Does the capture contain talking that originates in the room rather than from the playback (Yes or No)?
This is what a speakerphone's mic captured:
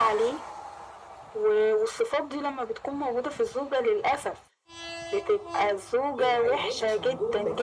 Yes